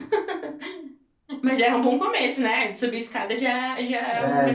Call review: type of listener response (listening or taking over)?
taking over